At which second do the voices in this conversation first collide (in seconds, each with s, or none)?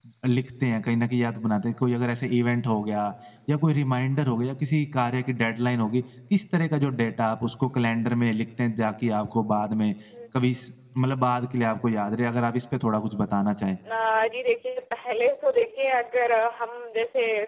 none